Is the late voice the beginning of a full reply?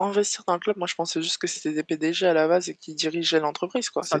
Yes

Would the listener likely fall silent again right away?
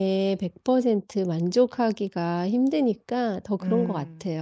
No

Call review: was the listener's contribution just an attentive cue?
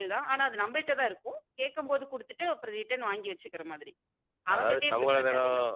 No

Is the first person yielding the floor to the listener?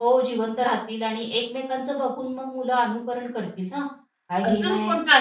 Yes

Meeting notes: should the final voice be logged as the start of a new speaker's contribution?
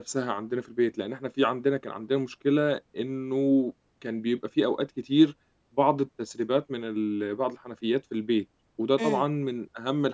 No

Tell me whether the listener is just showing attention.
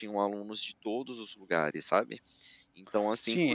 No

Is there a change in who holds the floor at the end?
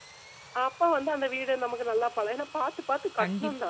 No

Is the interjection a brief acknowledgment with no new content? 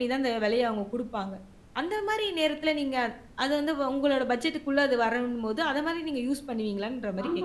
No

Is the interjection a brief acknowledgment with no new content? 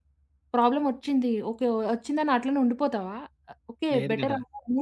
Yes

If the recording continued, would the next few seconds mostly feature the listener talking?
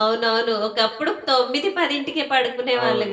Yes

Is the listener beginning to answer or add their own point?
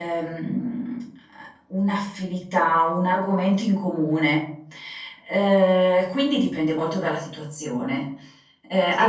No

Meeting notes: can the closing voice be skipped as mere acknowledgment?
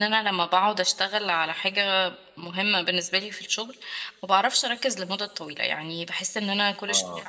Yes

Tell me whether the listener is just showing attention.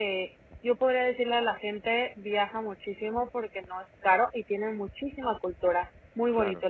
No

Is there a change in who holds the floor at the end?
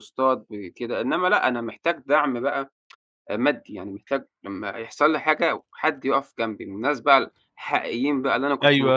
Yes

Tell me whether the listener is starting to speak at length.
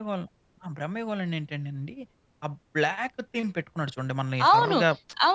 Yes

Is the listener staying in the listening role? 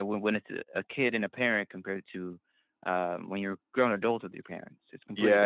No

